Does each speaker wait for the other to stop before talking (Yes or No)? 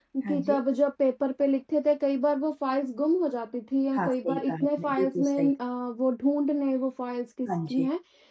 No